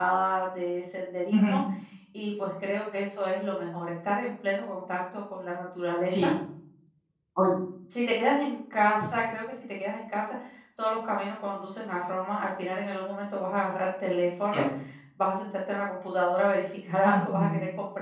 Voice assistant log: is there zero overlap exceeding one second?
Yes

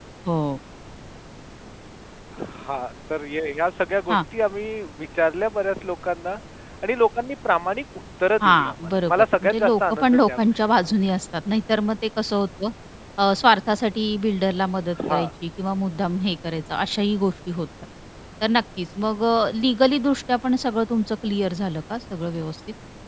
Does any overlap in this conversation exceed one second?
Yes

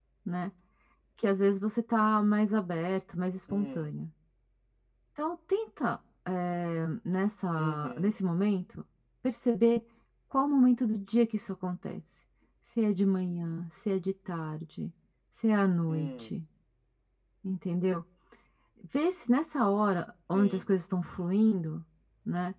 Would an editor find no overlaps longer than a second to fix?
Yes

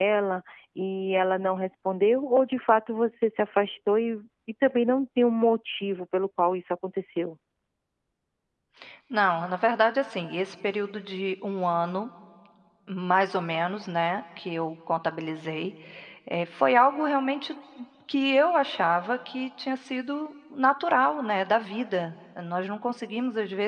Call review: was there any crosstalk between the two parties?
No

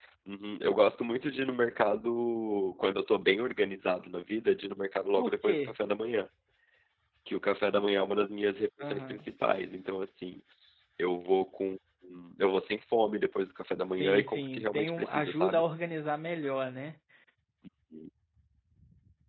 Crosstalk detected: Yes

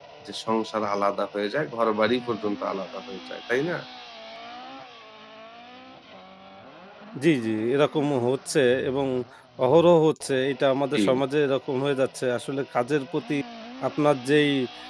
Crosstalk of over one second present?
No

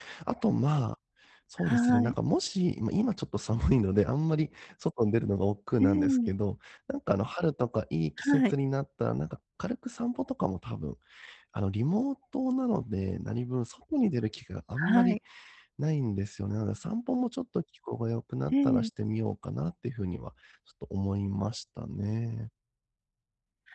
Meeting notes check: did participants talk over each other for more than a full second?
No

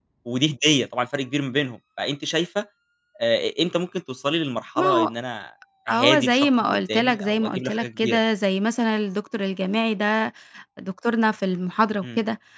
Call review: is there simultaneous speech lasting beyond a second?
Yes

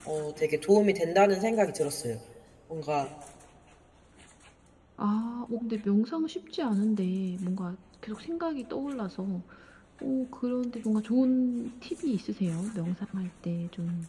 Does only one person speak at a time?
Yes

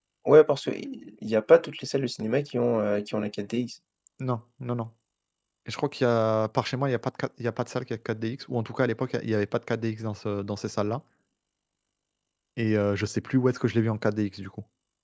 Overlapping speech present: No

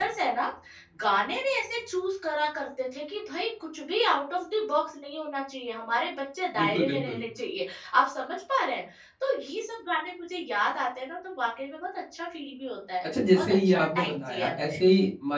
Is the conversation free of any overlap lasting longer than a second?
No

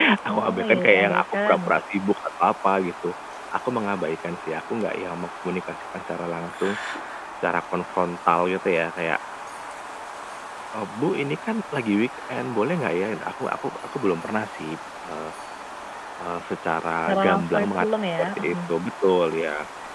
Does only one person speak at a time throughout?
No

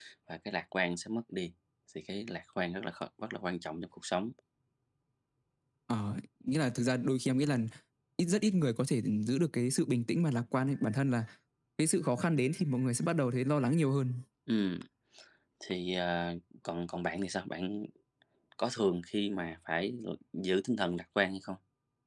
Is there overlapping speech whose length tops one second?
No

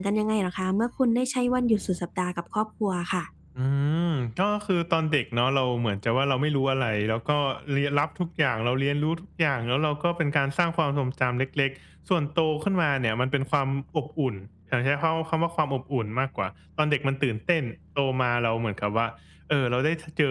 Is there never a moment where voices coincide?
Yes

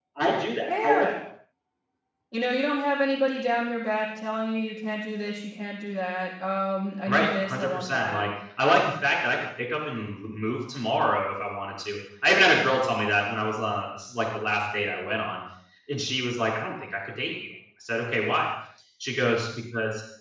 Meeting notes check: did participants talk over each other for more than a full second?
Yes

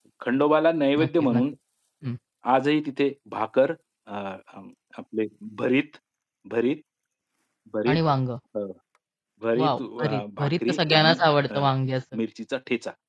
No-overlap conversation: No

